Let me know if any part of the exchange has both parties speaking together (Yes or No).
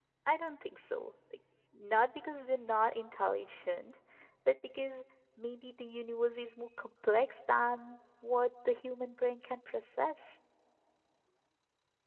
No